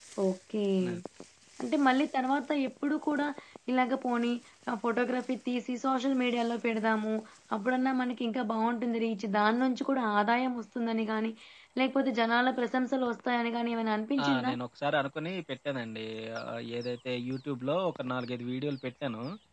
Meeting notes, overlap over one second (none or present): none